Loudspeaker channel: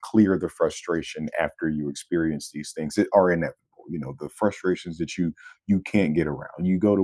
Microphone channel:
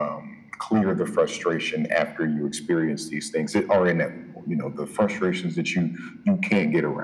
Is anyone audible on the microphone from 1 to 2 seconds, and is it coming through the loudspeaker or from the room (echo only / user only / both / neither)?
echo only